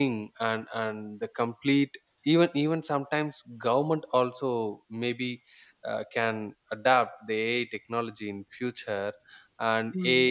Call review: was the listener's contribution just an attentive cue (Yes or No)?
Yes